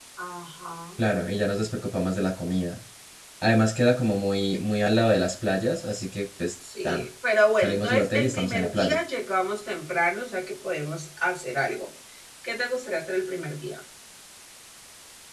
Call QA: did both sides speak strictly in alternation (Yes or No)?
No